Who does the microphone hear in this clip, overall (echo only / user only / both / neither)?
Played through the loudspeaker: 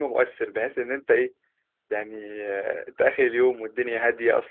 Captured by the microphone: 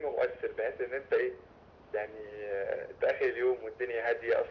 echo only